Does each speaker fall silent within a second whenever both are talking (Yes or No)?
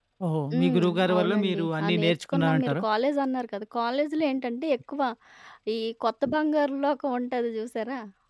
No